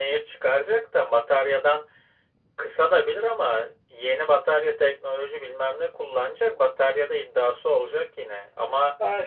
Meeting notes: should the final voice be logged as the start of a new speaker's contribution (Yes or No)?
Yes